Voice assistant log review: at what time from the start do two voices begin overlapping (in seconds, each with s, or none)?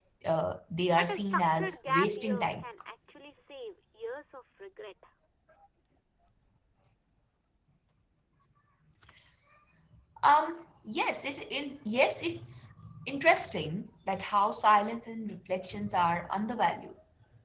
0.9 s